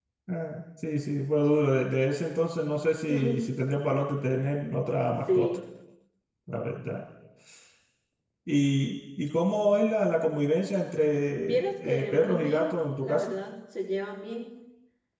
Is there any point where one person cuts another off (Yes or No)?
Yes